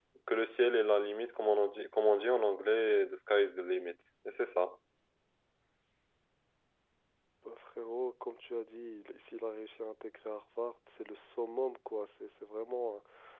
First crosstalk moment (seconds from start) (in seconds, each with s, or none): none